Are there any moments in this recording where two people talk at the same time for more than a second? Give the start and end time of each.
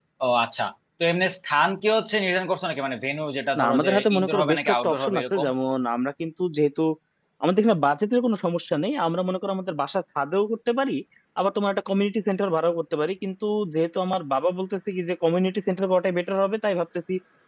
3.6-5.5

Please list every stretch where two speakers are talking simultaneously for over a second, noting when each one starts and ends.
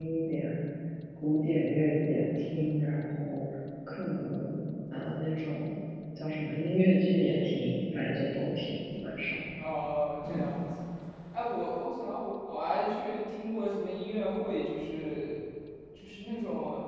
none

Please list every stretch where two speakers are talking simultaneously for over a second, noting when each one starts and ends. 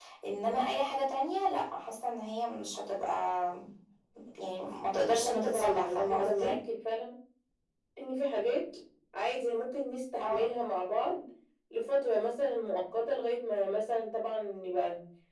5.2-6.6

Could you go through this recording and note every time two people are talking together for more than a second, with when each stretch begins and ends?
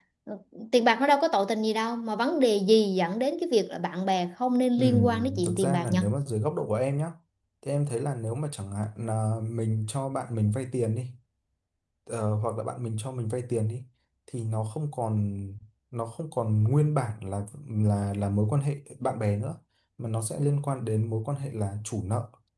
4.8-6.0

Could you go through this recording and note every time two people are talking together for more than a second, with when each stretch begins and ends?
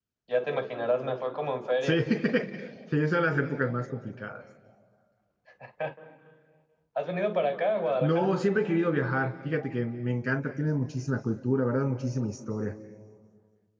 none

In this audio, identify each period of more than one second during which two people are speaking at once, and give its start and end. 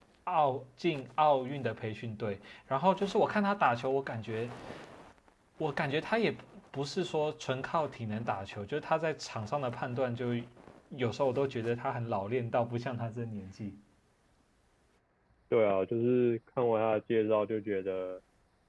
none

